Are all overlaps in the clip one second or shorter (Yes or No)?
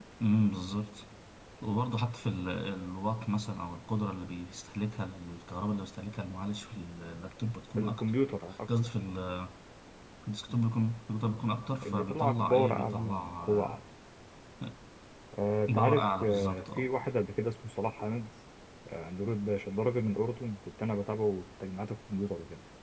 No